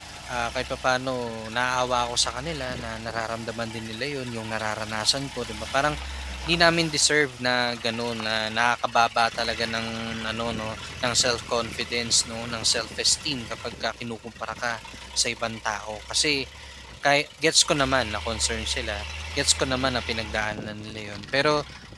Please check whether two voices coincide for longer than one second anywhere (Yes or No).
No